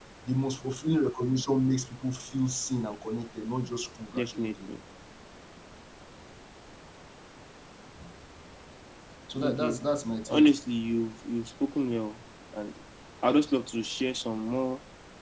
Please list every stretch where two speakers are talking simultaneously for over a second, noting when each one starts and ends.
none

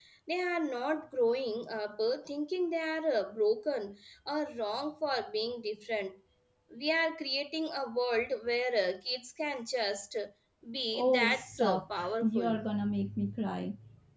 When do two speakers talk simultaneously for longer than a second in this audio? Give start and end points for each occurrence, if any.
10.9-12.6

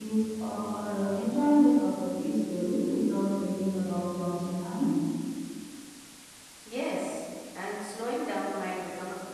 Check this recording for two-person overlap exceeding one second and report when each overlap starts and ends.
none

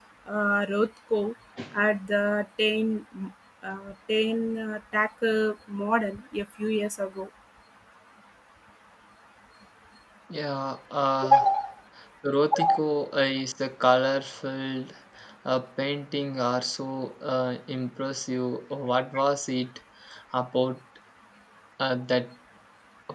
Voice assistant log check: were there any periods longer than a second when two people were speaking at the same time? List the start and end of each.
none

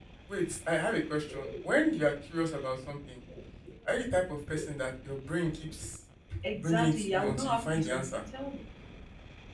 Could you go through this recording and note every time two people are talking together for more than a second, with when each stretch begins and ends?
6.5-8.2

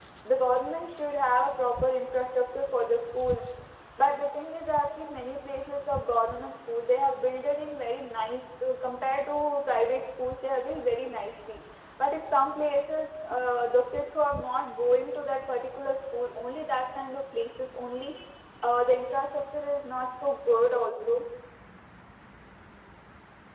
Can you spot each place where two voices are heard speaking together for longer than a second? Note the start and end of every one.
none

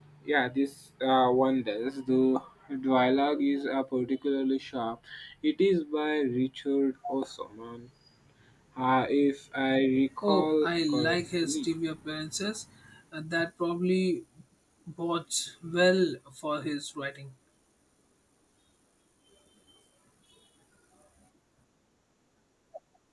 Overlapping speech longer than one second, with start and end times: 10.2-11.7

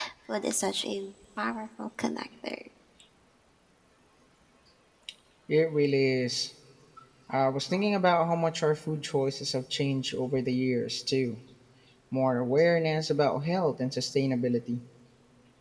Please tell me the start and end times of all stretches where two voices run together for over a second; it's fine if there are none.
none

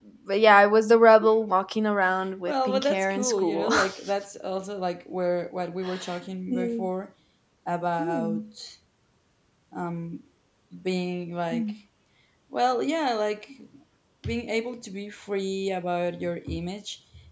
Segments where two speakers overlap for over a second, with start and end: 2.5-3.7

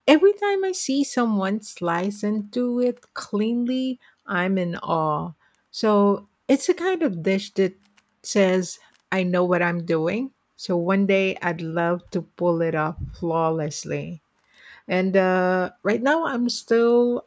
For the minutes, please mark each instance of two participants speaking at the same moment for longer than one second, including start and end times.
none

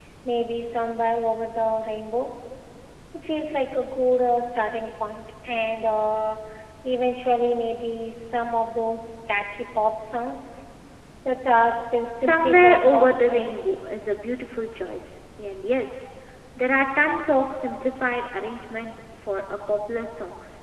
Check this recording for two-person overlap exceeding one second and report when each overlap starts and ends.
12.2-13.7

